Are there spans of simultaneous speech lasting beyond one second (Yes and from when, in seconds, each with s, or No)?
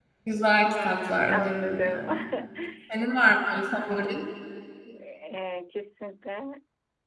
Yes, from 0.6 s